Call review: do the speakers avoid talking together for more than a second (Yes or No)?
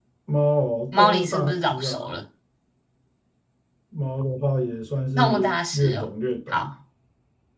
No